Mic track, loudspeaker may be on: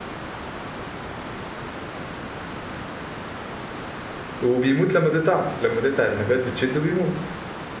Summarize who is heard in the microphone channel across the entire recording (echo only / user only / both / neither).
user only